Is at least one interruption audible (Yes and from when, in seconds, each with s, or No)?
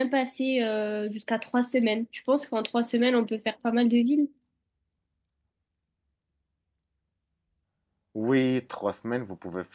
No